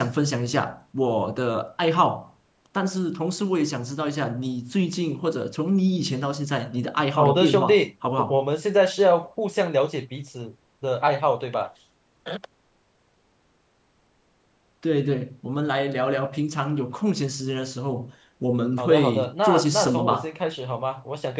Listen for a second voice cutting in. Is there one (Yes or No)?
Yes